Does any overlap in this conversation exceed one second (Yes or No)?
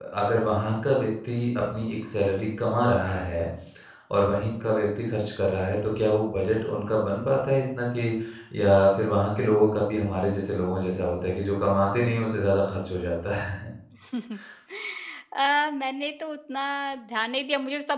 No